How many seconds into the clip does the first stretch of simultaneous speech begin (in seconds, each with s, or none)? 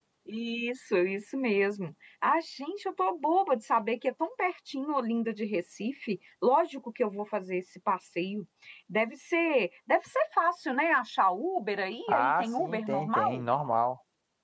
12.1 s